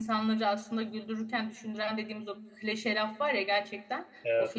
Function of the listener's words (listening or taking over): listening